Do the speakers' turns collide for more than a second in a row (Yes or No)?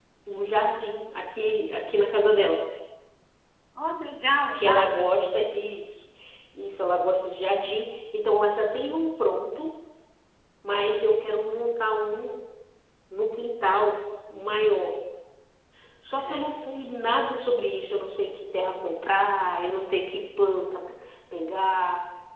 No